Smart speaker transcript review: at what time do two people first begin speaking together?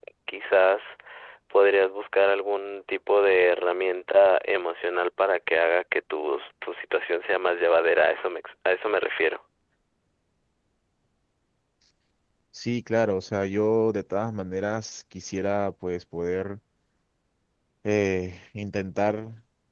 none

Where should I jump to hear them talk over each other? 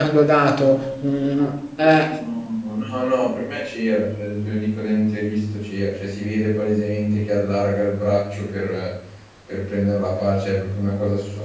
none

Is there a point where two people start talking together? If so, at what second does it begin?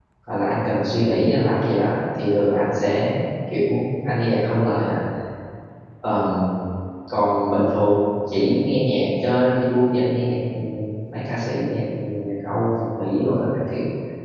none

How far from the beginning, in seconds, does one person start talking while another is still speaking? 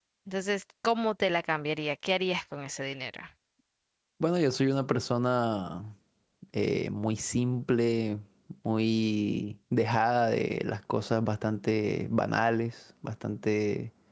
none

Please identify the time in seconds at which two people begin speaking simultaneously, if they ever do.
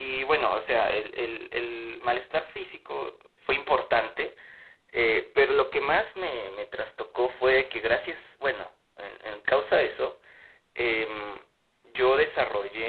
none

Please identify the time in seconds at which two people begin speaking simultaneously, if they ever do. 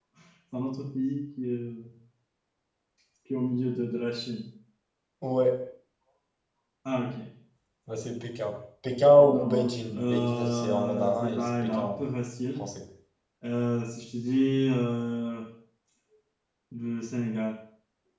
9.3 s

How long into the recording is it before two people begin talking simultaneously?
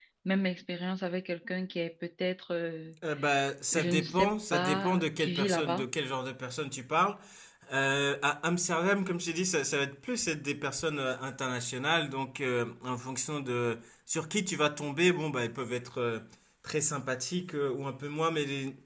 3.7 s

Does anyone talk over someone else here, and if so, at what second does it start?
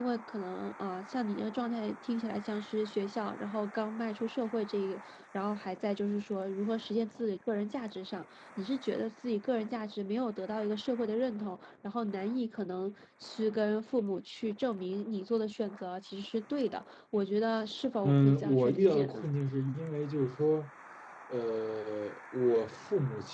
18.0 s

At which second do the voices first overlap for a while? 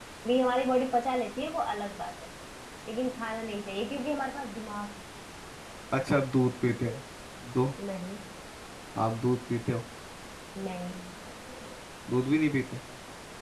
none

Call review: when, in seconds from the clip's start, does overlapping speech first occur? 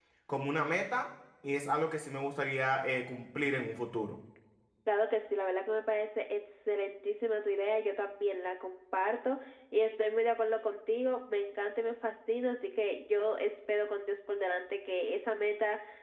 none

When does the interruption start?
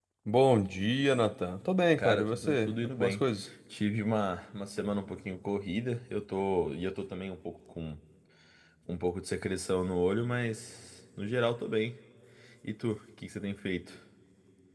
1.9 s

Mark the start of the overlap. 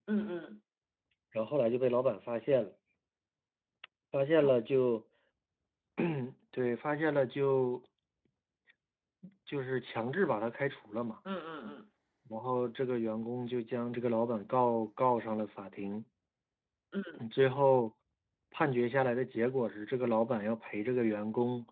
none

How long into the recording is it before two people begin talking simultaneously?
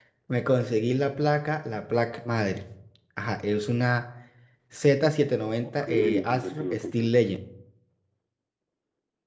5.6 s

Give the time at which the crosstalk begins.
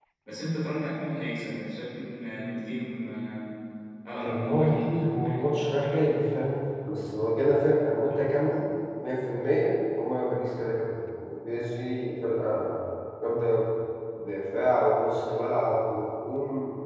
4.2 s

